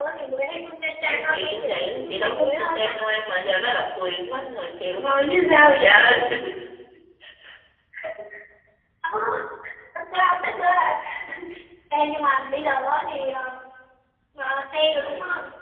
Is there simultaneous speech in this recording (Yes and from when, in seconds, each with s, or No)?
Yes, from 1.1 s